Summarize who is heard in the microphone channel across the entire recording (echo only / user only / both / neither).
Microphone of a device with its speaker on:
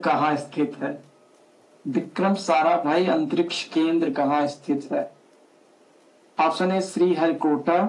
echo only